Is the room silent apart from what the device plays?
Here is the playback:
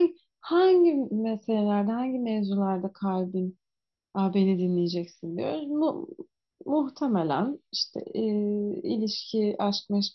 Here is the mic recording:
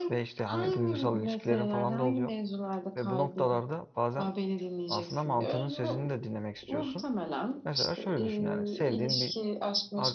No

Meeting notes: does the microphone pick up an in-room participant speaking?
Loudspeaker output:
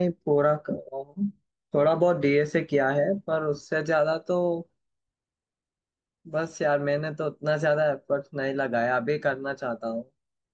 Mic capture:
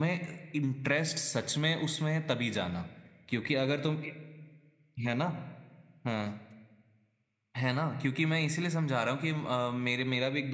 Yes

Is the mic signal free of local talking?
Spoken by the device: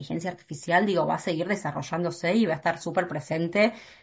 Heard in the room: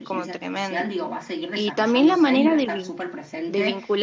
No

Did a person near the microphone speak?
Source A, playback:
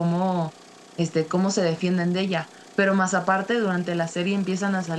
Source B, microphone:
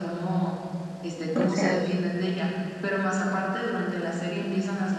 Yes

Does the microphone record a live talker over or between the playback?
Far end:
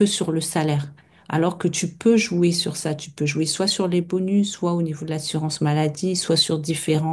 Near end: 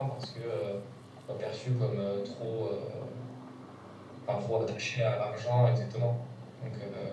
Yes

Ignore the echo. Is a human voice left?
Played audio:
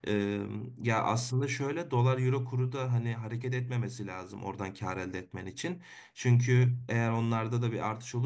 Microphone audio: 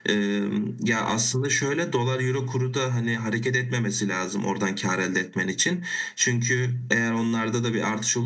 No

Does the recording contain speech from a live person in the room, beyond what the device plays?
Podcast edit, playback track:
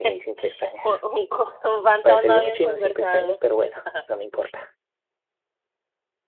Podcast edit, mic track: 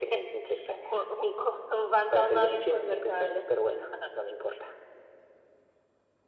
No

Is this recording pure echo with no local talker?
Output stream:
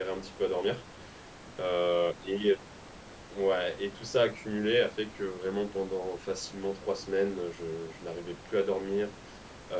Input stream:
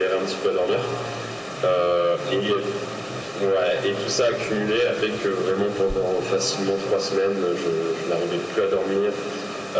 No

